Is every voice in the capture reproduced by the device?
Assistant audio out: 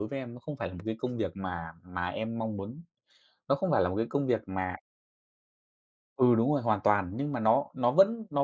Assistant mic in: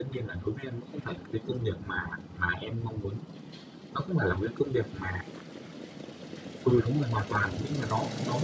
Yes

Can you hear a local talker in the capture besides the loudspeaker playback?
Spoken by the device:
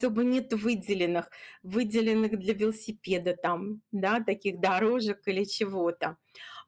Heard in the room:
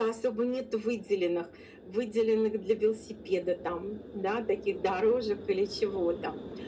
No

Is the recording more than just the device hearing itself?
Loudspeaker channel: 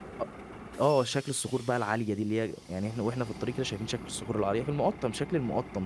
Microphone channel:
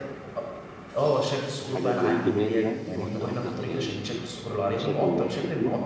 Yes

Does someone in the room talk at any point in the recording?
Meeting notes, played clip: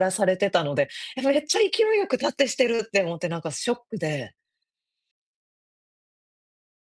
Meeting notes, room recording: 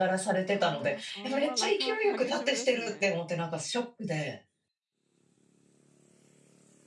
Yes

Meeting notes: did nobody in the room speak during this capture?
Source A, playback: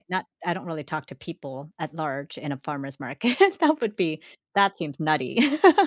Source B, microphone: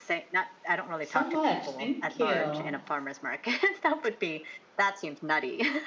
No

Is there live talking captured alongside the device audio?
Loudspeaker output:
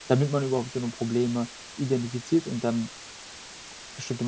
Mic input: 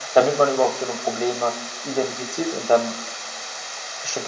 No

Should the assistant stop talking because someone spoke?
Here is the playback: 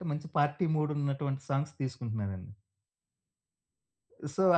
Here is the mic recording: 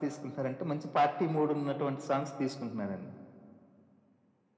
No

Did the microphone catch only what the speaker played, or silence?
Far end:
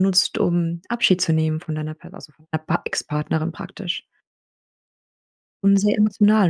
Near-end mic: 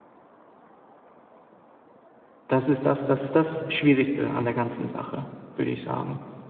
No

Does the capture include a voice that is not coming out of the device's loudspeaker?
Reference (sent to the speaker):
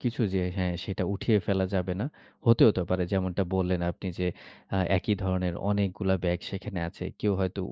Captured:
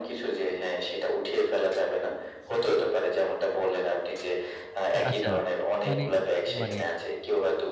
Yes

